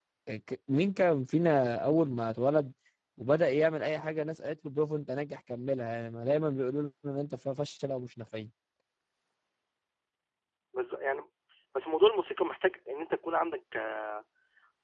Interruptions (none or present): none